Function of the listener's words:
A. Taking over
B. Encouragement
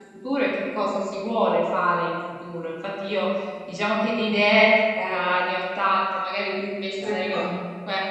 B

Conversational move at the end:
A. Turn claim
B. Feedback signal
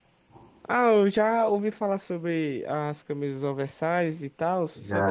A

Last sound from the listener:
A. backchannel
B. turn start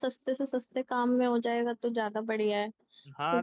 B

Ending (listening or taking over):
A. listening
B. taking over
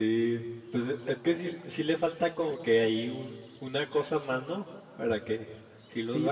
B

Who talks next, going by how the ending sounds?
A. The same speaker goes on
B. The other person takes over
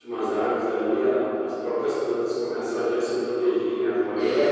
B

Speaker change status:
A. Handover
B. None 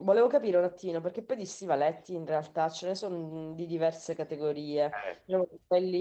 B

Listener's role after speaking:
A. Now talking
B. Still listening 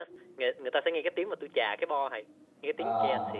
B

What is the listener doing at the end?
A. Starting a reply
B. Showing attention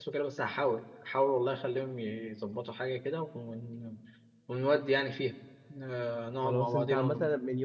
A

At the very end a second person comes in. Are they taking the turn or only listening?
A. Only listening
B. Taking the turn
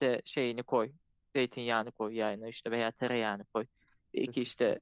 A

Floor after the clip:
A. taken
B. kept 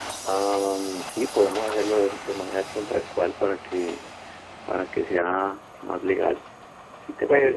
A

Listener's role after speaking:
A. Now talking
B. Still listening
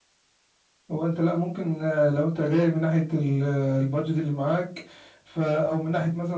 B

